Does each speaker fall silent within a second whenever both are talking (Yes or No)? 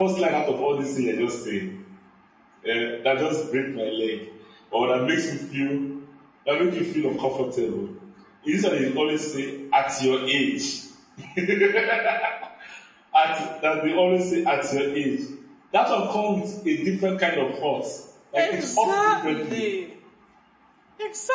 No